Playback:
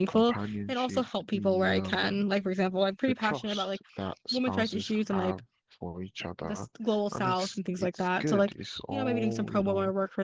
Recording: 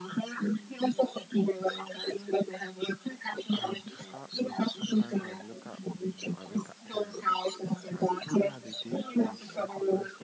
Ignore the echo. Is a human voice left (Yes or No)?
Yes